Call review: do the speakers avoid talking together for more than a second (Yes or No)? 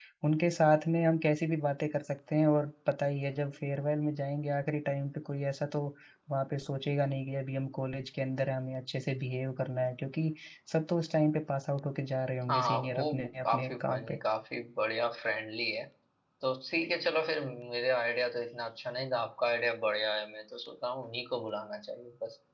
No